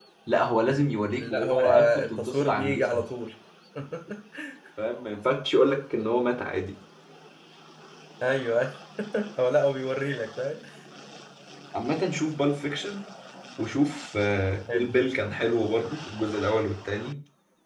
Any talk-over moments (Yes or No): Yes